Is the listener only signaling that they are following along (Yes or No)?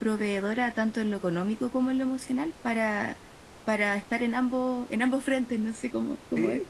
No